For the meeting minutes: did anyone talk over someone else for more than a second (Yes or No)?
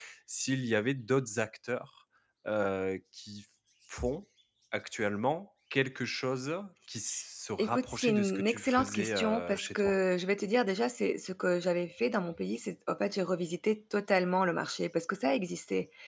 Yes